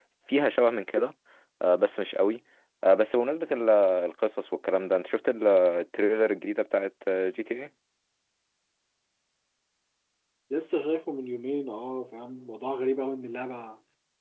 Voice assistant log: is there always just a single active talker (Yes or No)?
Yes